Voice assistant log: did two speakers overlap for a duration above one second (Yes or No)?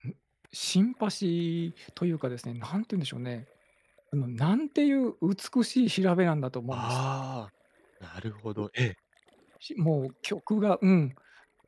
No